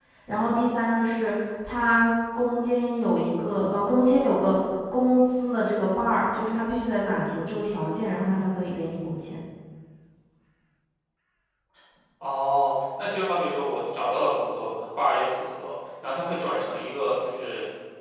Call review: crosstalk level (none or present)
none